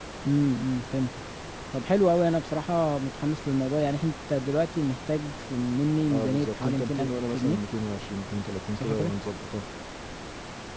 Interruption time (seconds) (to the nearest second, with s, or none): 6 s